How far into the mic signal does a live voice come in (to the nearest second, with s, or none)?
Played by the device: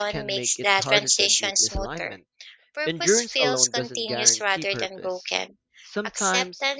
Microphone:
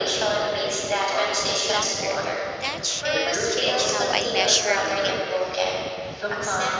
2 s